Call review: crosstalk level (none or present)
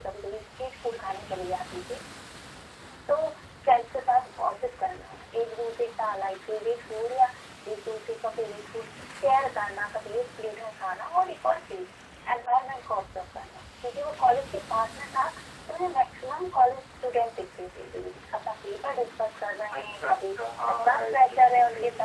present